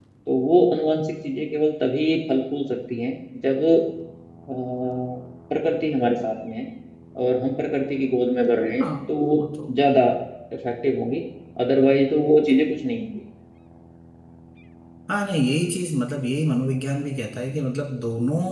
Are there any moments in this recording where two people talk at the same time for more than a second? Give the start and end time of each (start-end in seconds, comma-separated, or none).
none